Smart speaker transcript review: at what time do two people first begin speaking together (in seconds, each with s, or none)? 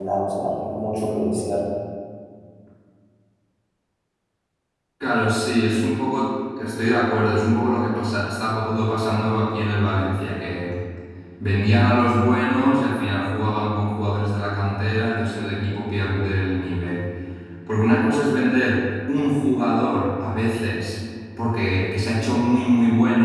none